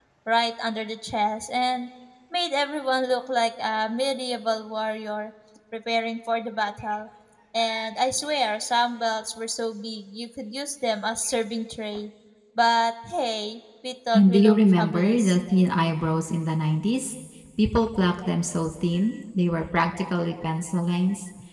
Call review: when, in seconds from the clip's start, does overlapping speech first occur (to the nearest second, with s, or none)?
14 s